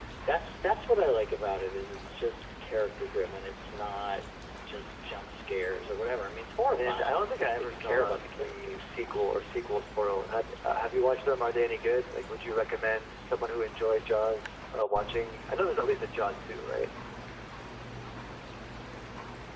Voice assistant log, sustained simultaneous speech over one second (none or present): present